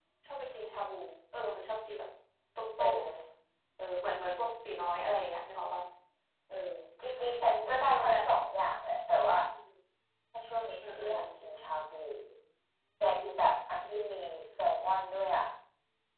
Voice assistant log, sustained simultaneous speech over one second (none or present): none